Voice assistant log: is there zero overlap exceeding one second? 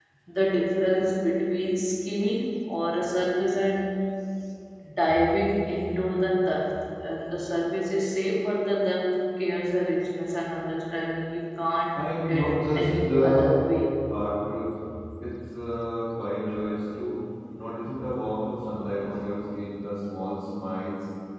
No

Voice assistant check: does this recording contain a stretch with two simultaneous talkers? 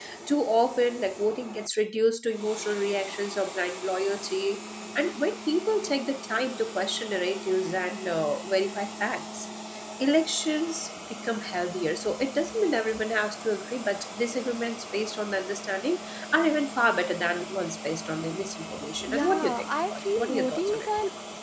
Yes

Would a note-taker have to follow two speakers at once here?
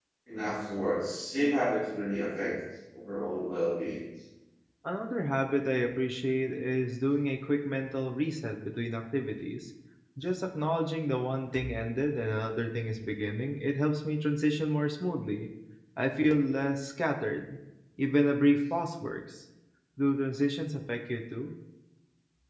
No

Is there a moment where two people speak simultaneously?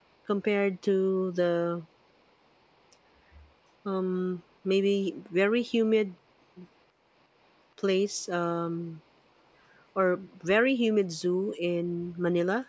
No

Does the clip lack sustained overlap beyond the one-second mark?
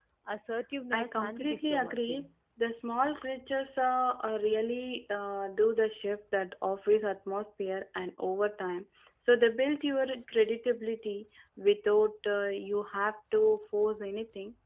No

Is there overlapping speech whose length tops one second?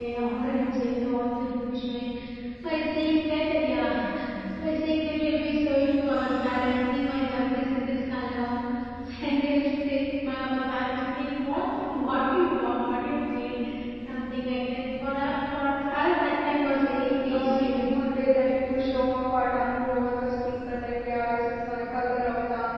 Yes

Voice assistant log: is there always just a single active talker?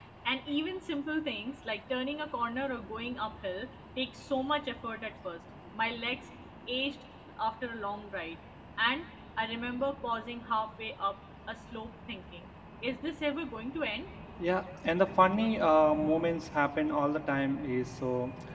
Yes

